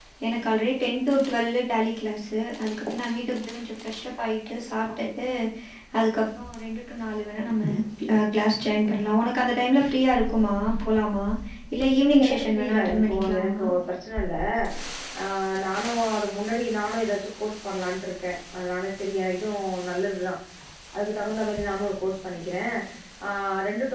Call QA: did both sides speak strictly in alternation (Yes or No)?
No